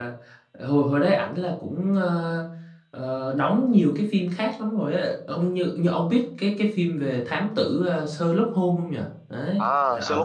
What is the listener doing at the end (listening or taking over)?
taking over